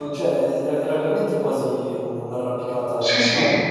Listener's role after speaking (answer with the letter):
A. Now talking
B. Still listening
A